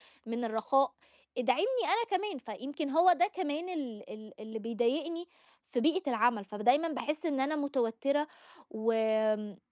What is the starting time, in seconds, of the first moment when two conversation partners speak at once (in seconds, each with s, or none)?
none